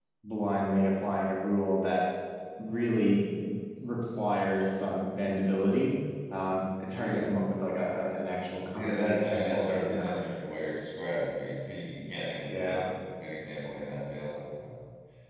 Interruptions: present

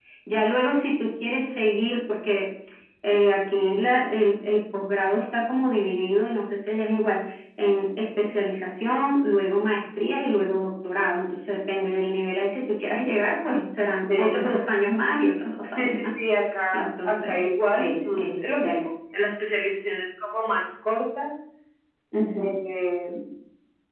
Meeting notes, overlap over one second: present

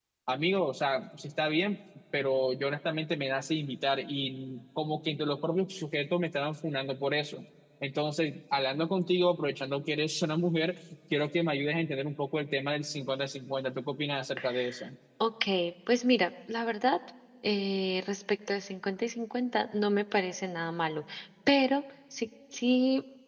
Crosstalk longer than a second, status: none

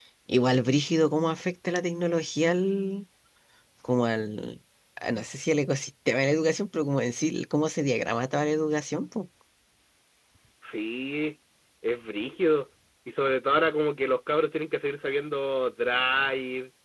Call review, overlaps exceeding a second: none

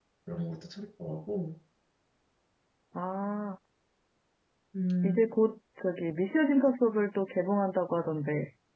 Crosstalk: none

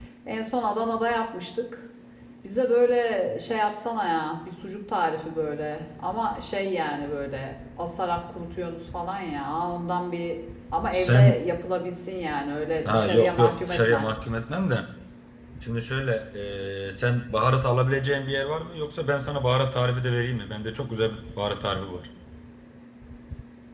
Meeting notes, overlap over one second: present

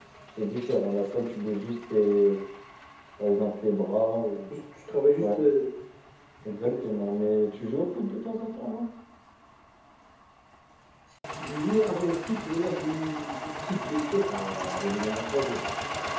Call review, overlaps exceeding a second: none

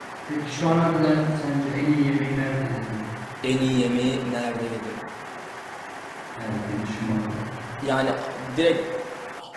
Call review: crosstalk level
none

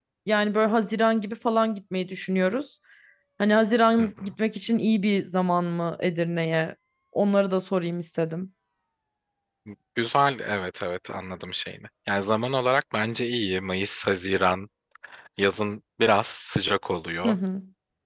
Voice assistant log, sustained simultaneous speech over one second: none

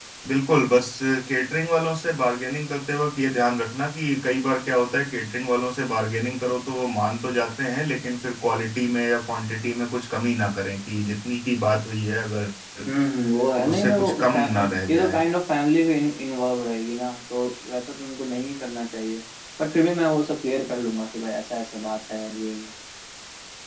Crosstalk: present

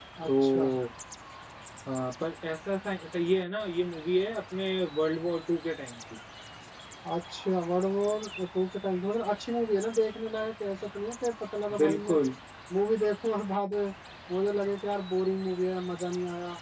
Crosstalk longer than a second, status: none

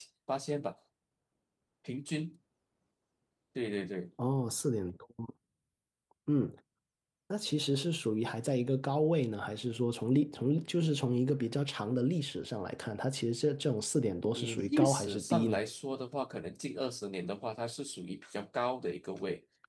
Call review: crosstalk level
present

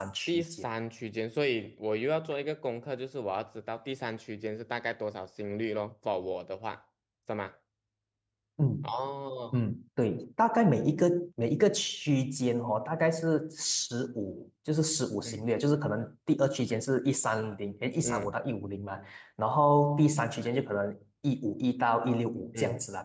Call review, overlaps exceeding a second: none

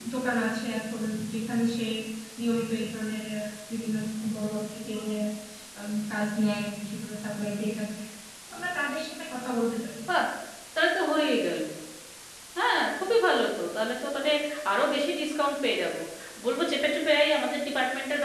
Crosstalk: none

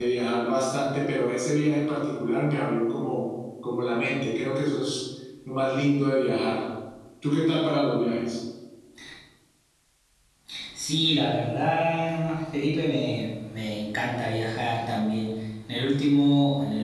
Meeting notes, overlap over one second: none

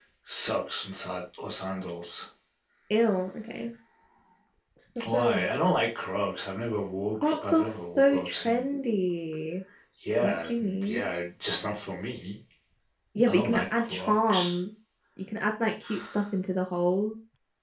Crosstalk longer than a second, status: present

